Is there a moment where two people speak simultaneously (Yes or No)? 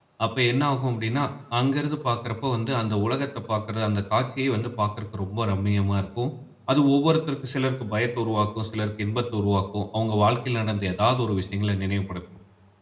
No